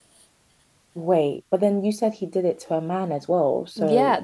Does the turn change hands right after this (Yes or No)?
Yes